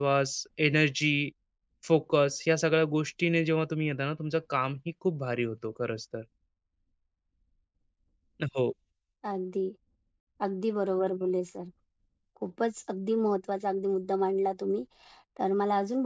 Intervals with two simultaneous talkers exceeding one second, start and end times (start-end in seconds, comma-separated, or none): none